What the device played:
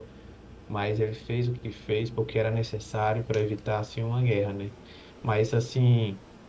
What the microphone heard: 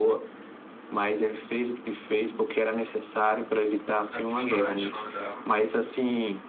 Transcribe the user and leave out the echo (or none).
A Tsunade, o nome dela.